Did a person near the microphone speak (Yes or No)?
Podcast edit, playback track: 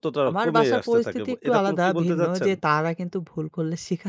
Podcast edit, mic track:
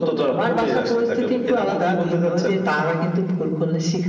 No